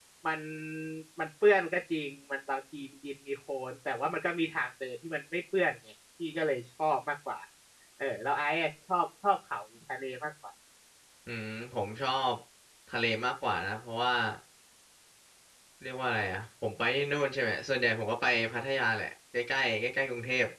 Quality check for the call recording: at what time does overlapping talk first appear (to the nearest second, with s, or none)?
none